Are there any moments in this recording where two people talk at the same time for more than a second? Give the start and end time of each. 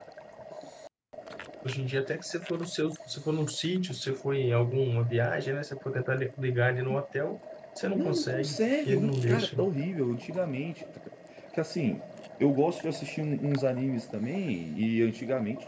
7.9-9.6

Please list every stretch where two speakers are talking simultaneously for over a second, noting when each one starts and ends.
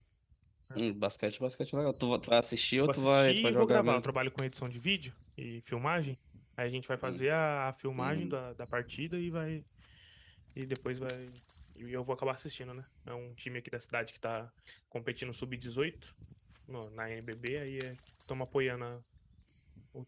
2.9-4.2

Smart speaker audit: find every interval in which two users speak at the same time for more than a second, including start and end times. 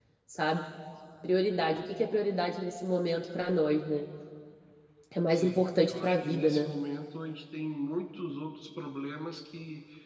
5.3-6.7

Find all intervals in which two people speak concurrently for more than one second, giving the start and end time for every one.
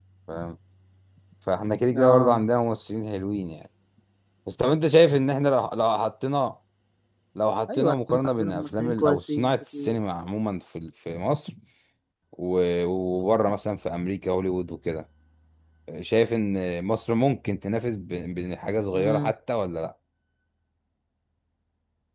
7.7-10.0

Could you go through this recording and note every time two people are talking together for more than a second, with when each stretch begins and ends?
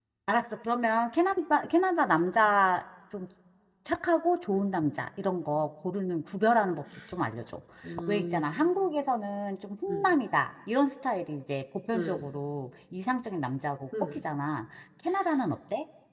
none

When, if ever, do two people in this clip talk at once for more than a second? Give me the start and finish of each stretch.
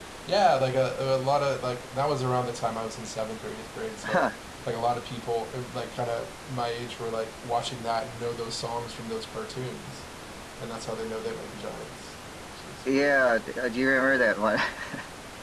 none

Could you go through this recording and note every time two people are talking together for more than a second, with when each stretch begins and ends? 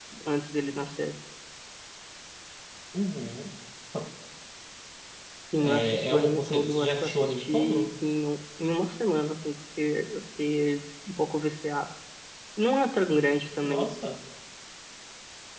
5.6-7.9

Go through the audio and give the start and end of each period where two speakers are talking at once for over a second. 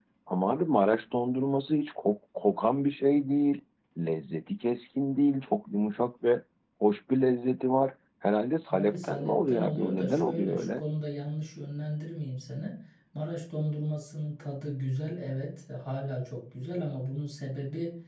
8.7-10.8

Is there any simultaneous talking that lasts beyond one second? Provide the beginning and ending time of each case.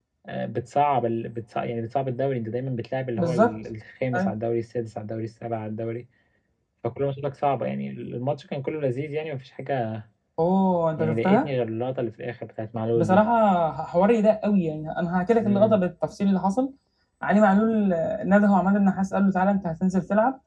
none

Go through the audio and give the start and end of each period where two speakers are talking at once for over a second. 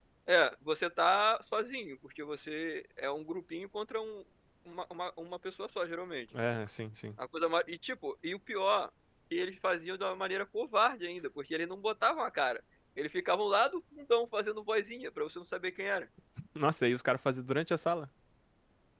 none

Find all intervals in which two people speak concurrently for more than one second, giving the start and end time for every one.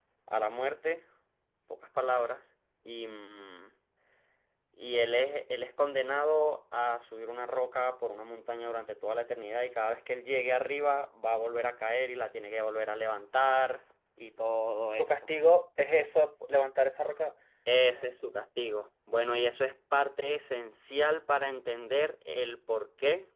none

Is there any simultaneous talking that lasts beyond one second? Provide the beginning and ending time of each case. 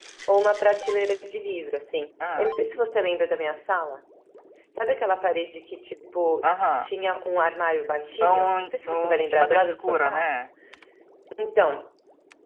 8.2-10.3

